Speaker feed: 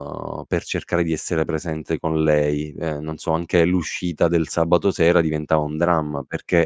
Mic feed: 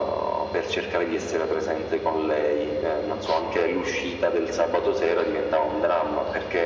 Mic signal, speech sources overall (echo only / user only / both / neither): echo only